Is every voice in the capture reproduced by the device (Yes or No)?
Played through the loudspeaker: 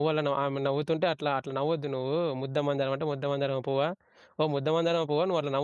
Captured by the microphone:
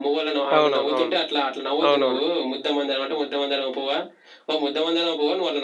No